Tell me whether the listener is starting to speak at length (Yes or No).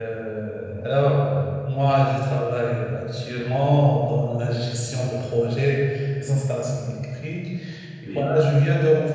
No